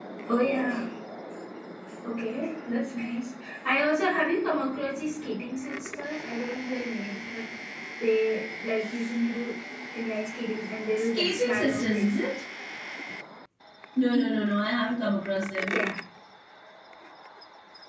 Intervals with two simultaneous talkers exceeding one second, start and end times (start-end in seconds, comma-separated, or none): 11.0-12.3